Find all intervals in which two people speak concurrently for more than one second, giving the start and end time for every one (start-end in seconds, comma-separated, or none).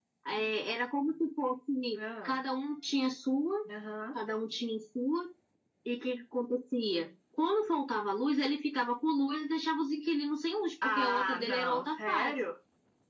10.8-12.3